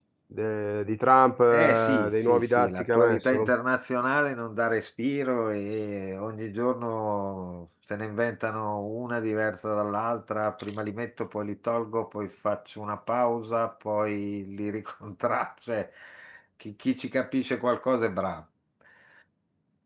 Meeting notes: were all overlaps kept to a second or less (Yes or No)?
No